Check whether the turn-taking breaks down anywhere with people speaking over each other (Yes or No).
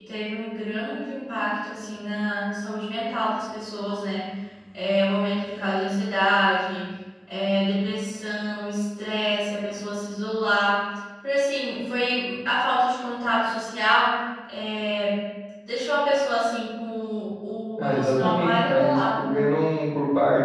Yes